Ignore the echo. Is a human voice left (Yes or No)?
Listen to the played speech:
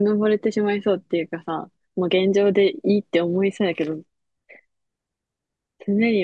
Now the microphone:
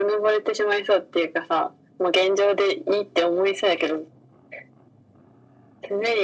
No